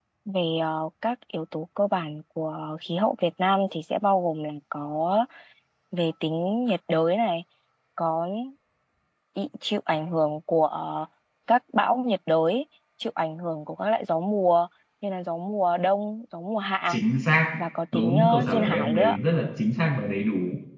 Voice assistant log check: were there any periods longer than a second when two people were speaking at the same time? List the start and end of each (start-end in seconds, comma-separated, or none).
17.9-19.2